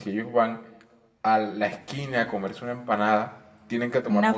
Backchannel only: Yes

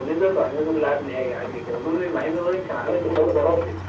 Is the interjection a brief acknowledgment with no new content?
No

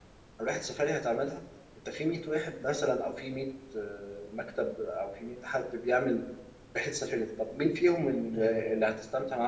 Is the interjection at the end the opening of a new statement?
No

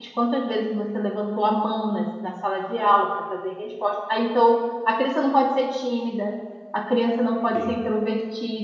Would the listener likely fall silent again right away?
Yes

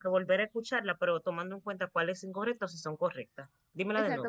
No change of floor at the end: No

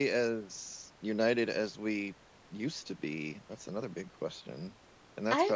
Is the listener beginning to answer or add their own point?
No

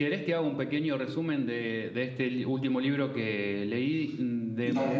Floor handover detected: No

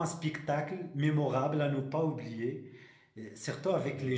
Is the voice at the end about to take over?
No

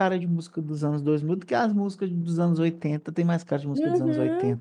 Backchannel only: No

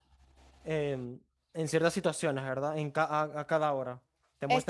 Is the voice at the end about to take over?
No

